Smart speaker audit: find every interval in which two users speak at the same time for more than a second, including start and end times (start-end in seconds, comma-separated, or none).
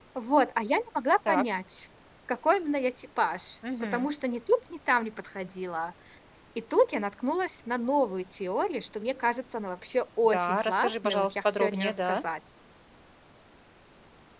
10.2-12.2